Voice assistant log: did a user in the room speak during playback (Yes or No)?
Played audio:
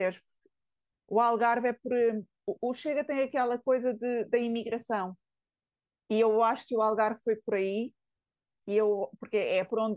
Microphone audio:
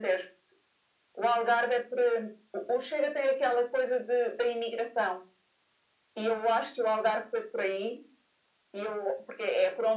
No